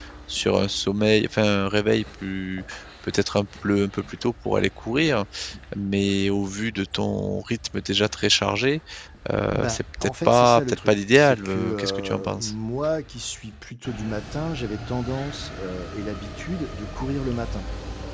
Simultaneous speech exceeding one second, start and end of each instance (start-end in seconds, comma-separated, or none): 9.5-12.5